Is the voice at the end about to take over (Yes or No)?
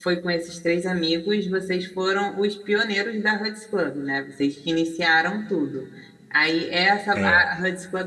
No